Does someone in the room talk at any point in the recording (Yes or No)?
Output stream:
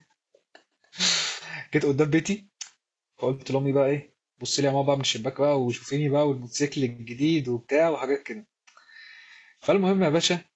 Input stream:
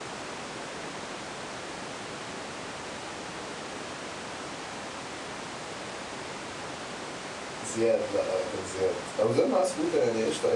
Yes